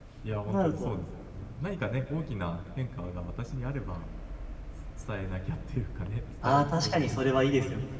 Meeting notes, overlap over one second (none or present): present